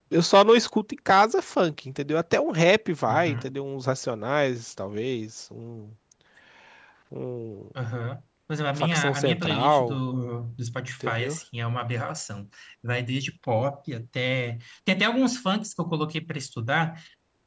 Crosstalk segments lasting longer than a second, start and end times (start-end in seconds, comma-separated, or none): 8.8-10.0